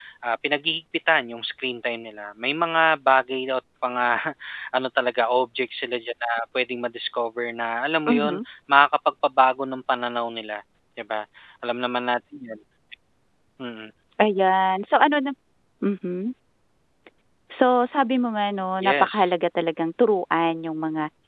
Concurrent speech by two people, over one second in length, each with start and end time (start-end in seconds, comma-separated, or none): none